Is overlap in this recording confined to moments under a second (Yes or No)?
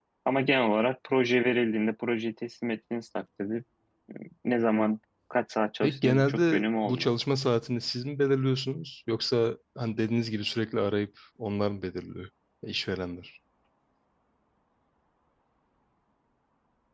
No